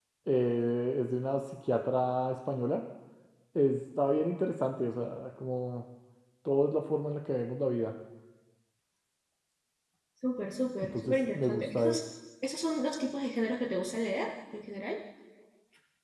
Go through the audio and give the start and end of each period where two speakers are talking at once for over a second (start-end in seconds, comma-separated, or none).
10.8-12.0